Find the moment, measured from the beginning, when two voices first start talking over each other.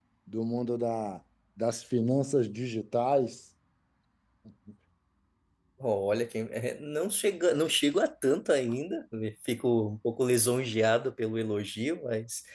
none

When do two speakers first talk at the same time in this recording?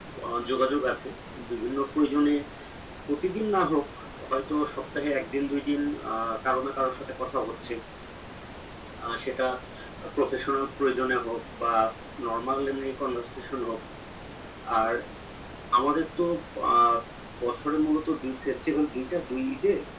none

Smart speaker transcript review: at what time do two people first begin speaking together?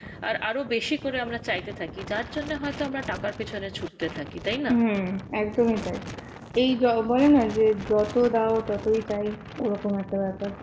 none

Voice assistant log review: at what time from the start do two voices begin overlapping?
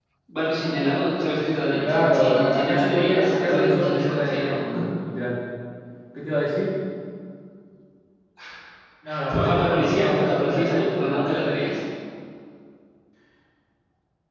2 s

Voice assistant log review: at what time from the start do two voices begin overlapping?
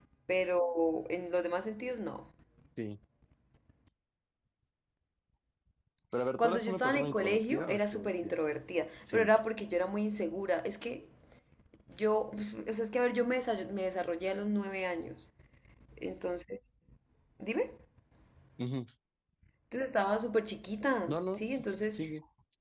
6 s

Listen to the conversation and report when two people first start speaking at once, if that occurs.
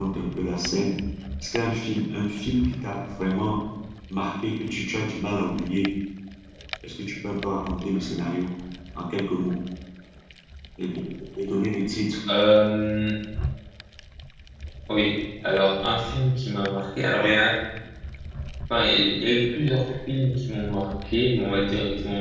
none

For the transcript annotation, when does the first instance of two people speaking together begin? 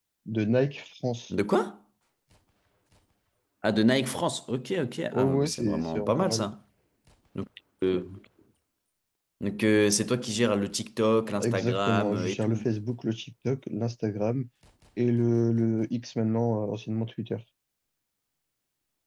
5 s

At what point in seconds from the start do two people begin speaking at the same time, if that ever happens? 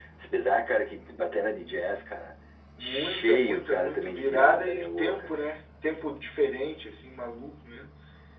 3 s

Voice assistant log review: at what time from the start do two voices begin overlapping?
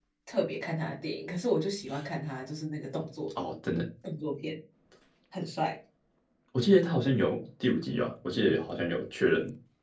none

